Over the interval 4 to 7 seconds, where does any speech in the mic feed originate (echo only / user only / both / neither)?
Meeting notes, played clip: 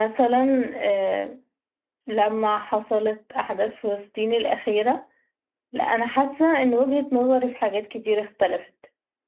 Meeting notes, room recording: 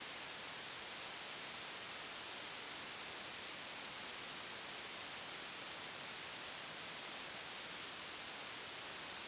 neither